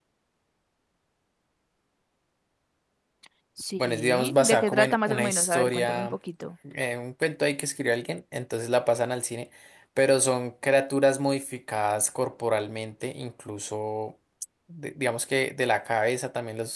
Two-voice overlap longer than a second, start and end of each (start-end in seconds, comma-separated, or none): 3.8-6.2